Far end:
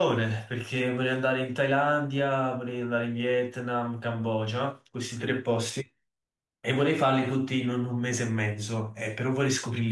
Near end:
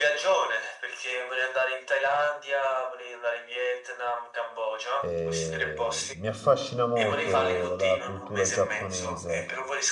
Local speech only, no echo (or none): Eh, mi affascina molto la cultura giapponese,